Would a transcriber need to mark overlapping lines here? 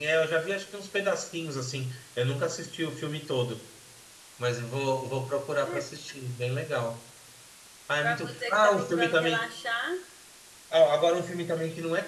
Yes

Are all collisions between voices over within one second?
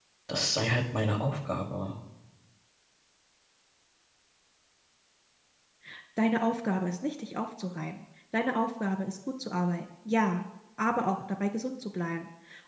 Yes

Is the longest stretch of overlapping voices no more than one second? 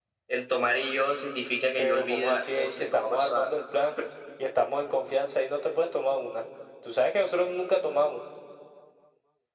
No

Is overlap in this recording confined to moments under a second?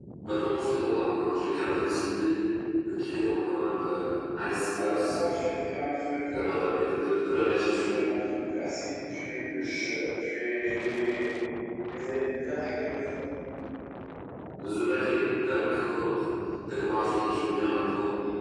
Yes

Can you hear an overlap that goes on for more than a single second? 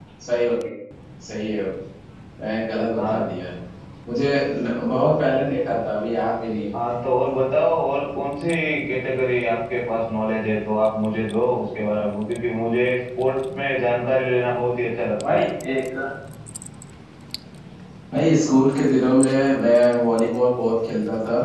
No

